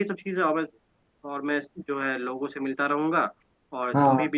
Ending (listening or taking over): listening